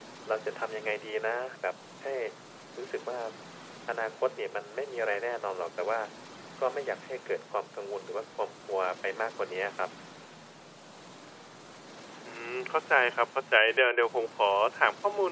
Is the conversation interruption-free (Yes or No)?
Yes